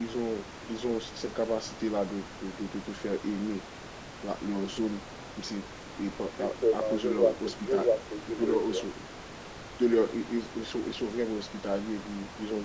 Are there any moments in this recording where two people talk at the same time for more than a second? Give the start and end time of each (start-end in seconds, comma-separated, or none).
6.4-7.9